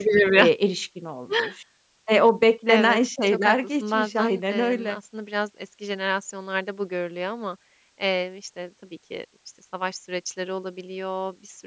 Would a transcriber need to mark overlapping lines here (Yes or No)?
Yes